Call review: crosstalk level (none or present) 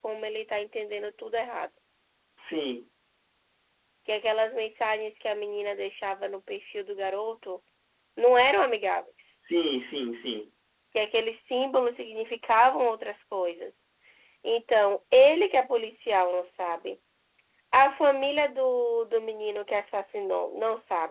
none